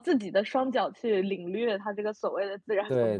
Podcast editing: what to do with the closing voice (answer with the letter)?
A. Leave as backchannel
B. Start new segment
B